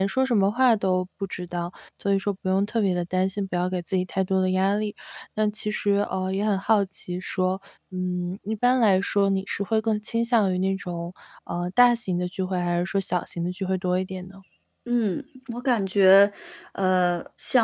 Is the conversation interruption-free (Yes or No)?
Yes